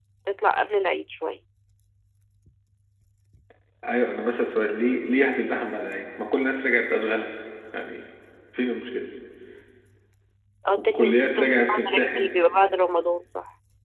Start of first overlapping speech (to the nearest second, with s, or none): 11 s